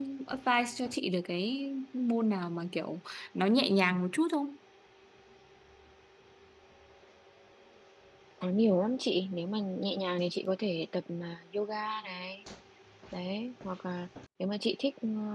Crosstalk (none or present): none